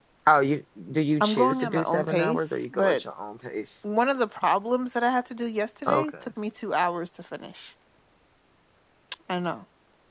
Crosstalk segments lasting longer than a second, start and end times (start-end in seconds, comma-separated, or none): 1.2-3.0